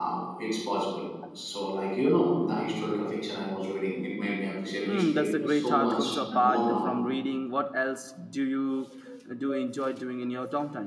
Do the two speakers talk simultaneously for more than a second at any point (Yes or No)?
Yes